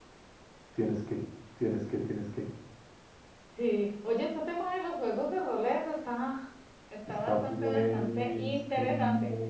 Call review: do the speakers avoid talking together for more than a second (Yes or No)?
No